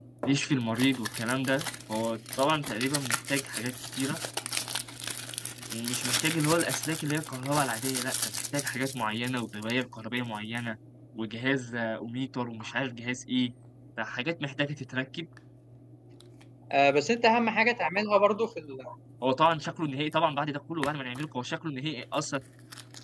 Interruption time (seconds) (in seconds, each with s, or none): none